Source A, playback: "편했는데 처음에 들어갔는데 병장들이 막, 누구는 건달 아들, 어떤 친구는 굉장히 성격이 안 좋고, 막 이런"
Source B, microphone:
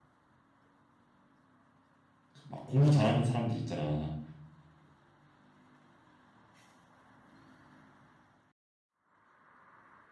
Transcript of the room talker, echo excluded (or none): 막 공부 잘하는 사람들 있잖아.